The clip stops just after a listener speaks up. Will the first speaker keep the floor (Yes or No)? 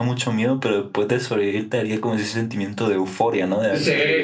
No